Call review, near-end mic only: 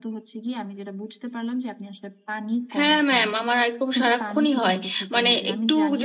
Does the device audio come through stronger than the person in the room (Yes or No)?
No